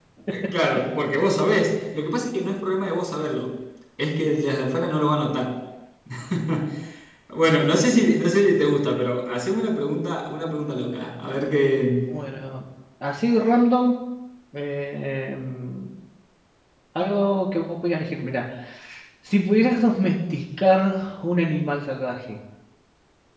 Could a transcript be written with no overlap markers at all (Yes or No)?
Yes